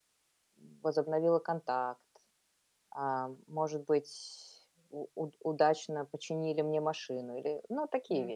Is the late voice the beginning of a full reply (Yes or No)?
Yes